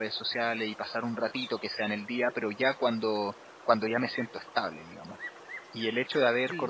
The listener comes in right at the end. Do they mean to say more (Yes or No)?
No